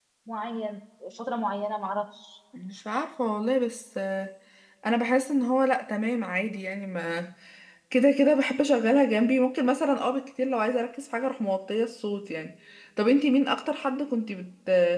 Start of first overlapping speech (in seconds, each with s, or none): none